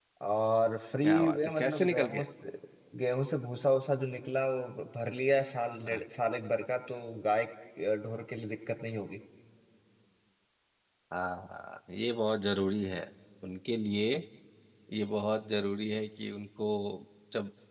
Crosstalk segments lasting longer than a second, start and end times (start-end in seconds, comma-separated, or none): 1.0-2.2